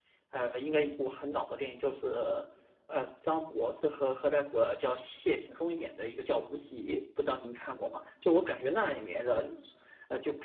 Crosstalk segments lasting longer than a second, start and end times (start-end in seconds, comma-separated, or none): none